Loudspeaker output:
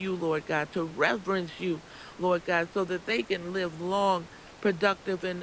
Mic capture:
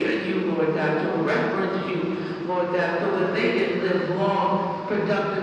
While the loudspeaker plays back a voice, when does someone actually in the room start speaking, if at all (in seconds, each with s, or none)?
none